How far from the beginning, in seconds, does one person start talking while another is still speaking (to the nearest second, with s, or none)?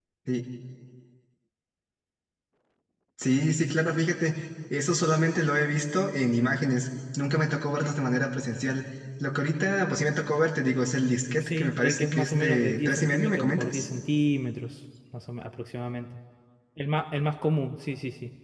11 s